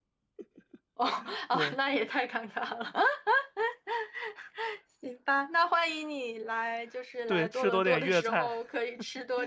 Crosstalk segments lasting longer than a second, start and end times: 7.3-8.6

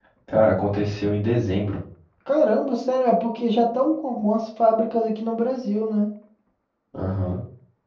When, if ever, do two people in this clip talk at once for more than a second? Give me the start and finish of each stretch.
none

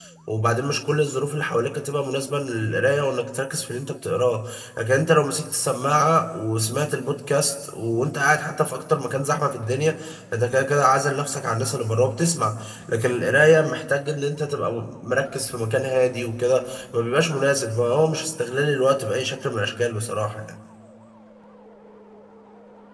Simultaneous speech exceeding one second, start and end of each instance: none

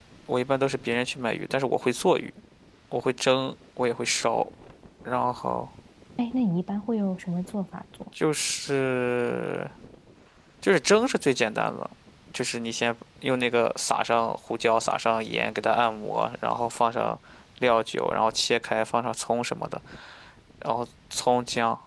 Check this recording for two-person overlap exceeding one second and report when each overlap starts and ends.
none

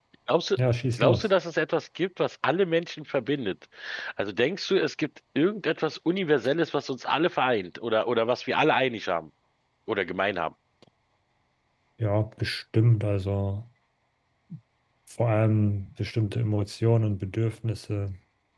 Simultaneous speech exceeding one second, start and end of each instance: none

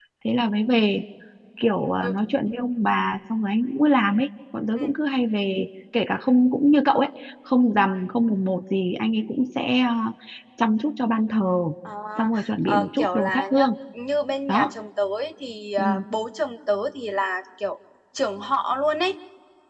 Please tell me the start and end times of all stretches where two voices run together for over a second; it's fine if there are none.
12.2-13.7

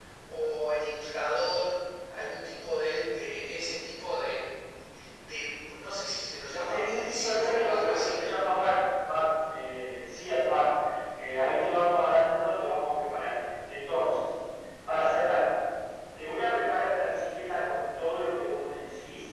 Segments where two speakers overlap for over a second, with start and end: 6.7-8.2

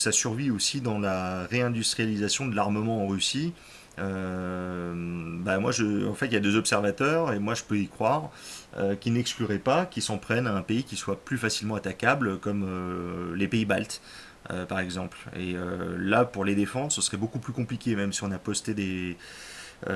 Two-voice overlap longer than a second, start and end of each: none

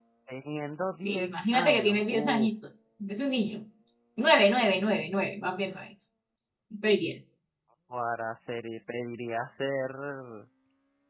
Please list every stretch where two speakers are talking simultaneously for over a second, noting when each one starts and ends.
1.0-2.5

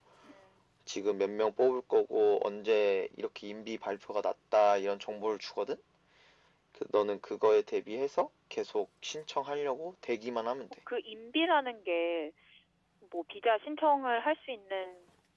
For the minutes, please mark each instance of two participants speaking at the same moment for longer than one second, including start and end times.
none

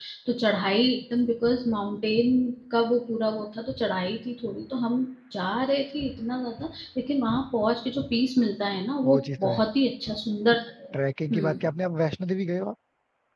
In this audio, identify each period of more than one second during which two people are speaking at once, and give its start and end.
none

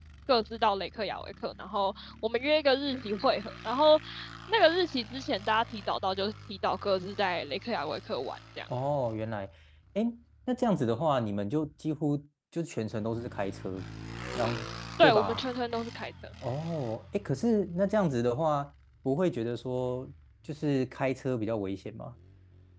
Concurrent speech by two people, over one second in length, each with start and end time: none

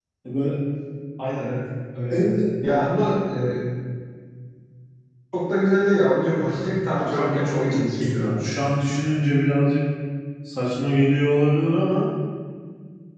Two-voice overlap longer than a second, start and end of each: 7.0-8.4

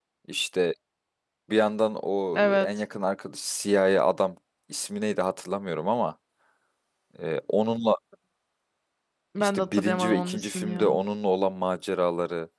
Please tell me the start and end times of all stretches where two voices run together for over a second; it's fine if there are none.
9.4-11.0

